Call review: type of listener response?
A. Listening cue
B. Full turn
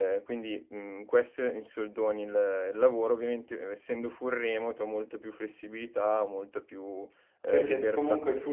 B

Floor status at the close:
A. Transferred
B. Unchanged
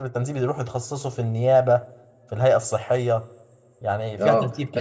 A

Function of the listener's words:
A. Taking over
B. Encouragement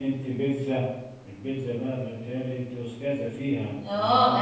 A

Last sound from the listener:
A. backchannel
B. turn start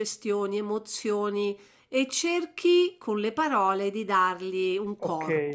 B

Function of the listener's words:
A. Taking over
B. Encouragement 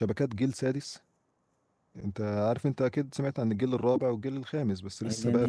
A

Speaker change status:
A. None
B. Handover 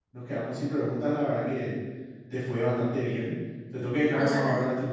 A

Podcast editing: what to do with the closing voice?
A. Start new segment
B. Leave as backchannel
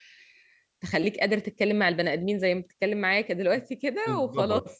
A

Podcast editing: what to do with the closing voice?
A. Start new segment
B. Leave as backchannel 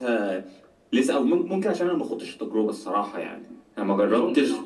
B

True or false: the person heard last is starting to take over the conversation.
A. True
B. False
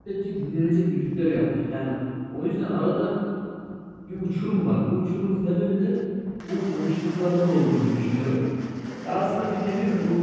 B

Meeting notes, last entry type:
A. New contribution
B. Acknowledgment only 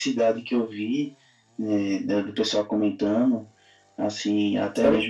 B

